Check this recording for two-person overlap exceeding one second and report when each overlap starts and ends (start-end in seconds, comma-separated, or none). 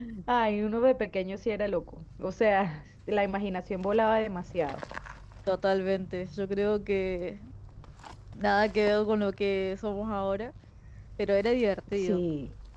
none